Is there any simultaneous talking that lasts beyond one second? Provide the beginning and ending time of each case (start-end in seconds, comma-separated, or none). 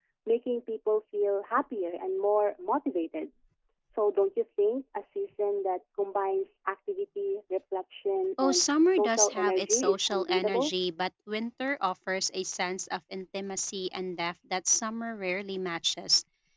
8.4-10.7